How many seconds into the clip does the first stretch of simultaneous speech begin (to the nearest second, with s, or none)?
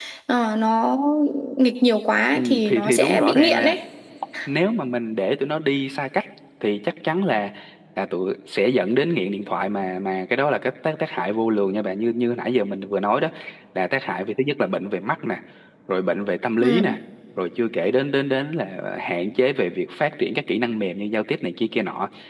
2 s